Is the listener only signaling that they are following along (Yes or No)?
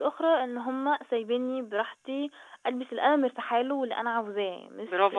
No